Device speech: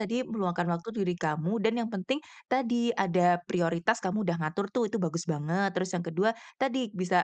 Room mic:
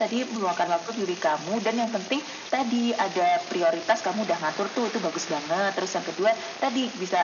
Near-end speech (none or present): none